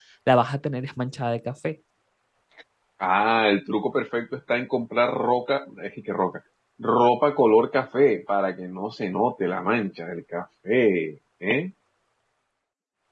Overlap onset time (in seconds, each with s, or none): none